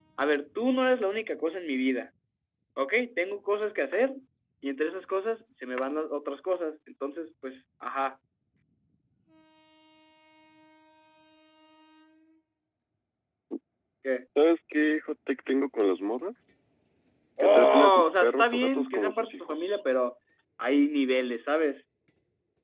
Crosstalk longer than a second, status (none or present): present